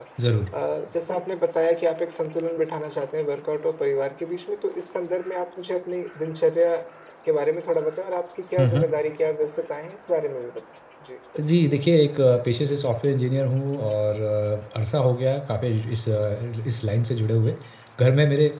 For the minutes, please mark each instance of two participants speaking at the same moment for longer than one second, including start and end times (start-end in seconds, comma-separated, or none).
none